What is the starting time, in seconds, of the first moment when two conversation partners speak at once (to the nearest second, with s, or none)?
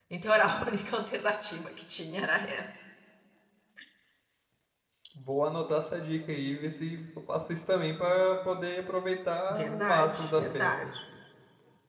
10 s